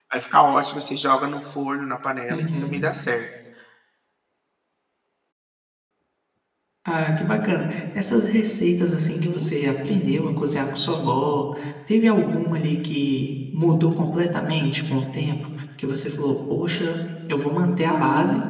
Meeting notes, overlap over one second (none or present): none